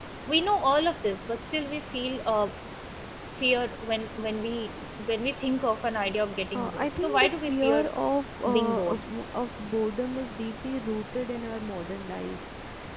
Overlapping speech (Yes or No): Yes